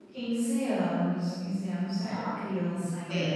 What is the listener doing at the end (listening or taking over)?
taking over